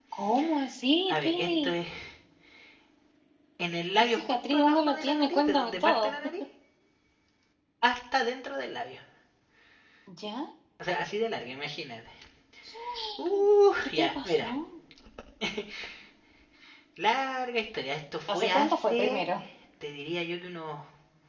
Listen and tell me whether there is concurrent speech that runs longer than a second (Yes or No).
Yes